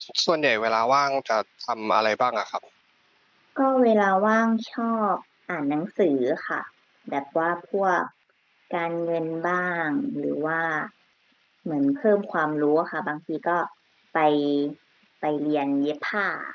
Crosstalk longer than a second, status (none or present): none